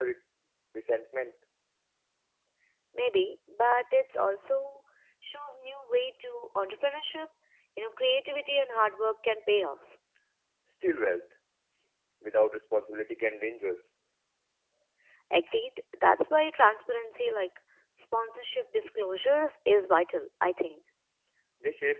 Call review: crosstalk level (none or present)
none